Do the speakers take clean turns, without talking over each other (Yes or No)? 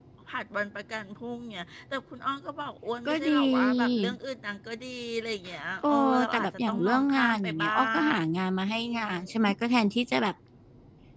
No